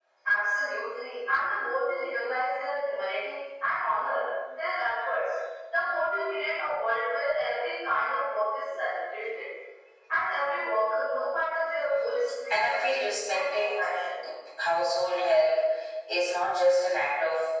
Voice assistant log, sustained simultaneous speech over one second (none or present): present